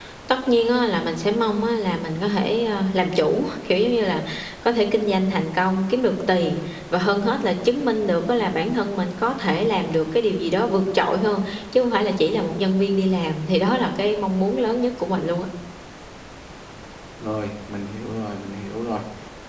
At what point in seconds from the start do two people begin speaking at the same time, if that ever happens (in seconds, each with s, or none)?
none